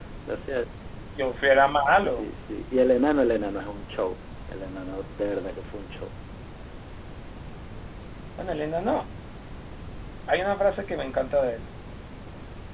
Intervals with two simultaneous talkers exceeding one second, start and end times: none

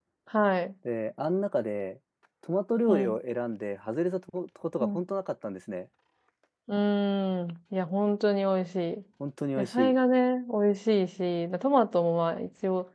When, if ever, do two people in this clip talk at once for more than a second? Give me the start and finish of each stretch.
none

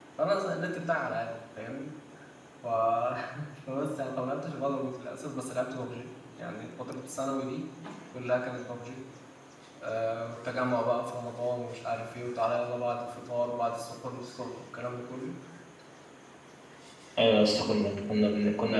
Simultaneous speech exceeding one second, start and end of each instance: none

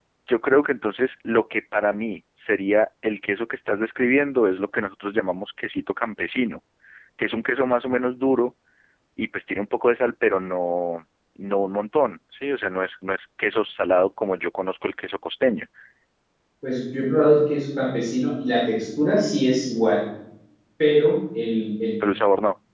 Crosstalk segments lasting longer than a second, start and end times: none

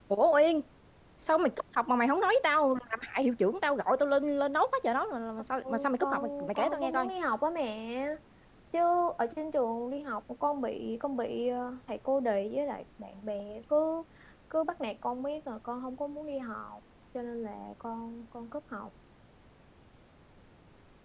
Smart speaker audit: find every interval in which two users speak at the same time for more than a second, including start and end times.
5.6-7.1

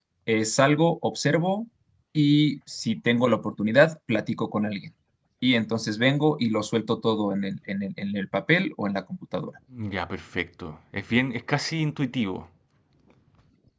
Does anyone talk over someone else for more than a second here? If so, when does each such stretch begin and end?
none

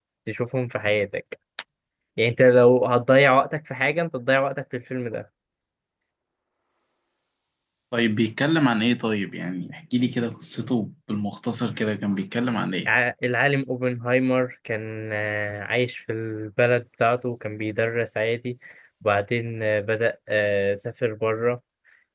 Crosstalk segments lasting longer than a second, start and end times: none

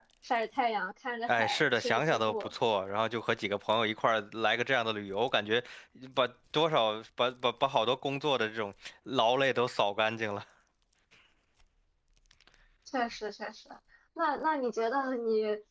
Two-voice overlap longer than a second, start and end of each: 1.3-2.5

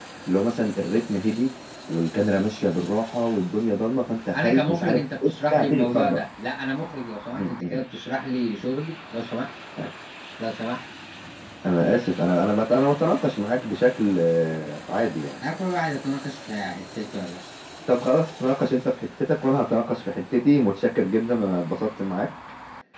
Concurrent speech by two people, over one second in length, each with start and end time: 4.3-6.2

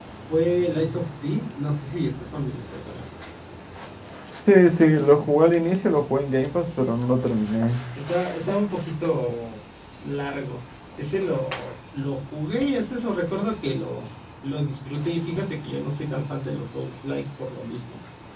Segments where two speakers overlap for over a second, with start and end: none

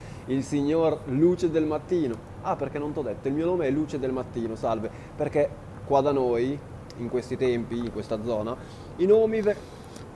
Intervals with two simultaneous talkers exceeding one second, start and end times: none

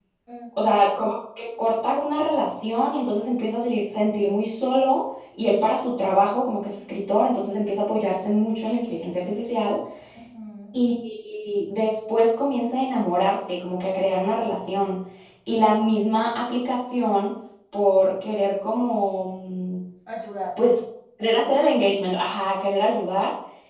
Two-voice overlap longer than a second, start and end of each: none

